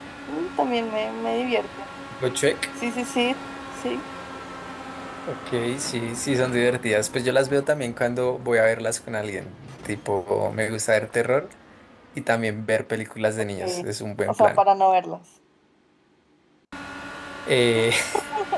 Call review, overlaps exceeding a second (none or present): none